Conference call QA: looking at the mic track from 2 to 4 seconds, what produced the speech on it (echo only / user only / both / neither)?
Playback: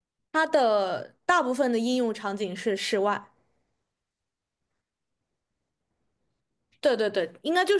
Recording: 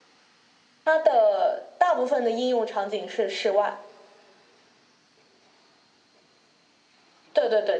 echo only